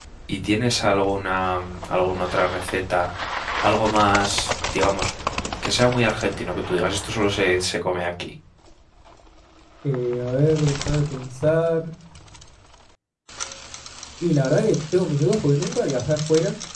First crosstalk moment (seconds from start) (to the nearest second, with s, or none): none